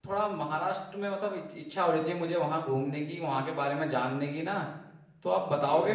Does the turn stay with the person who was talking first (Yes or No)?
No